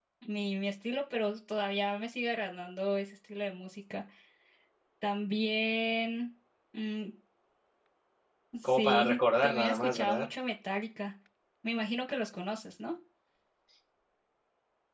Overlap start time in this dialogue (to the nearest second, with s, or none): 9 s